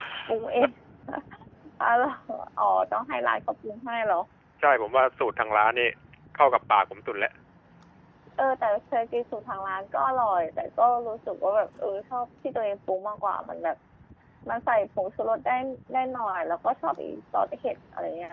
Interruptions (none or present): none